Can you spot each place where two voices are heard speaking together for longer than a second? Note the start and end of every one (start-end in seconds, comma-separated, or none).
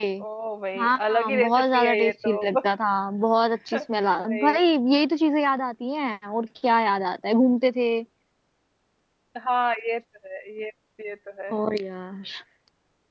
0.8-2.5